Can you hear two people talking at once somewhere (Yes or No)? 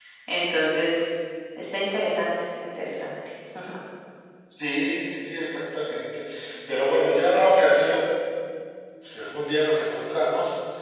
No